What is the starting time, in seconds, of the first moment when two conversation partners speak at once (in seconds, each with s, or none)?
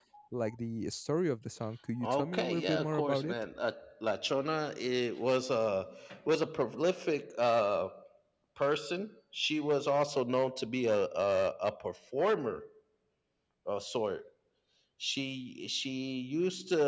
2.0 s